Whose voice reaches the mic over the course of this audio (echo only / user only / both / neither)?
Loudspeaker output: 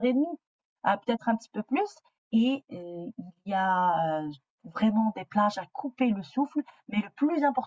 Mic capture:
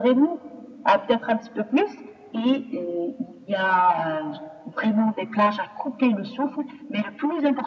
echo only